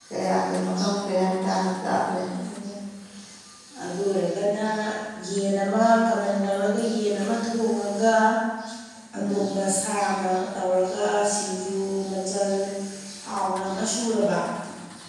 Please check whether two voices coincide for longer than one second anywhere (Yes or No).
No